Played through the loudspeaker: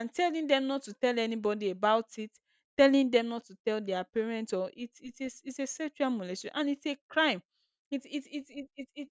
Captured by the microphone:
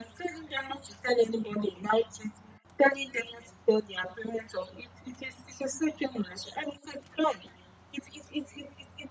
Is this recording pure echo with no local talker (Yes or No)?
Yes